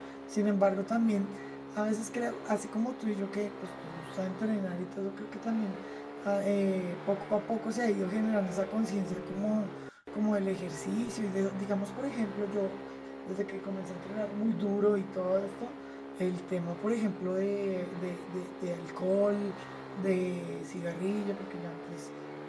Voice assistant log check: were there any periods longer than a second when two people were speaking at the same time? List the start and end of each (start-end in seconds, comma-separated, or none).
none